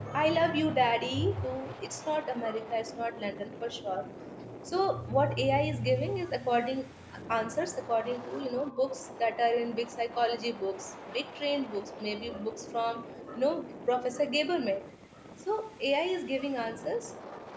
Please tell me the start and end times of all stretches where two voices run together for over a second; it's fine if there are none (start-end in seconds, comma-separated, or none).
none